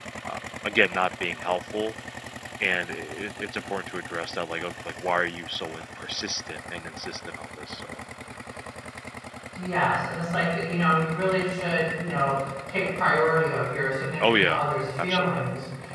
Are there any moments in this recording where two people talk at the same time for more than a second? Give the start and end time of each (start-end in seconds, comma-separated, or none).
none